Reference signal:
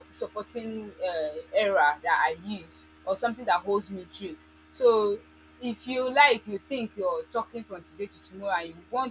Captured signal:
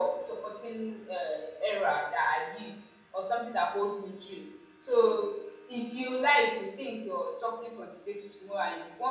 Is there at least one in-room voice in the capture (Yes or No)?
No